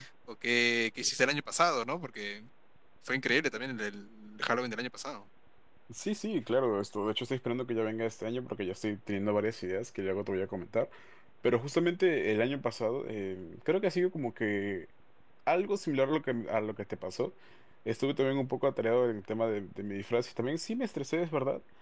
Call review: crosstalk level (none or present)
none